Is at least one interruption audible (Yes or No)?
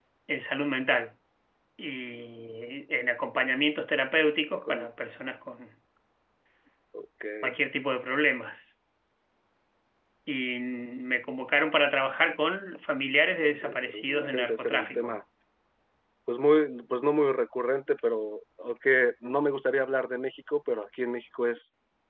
Yes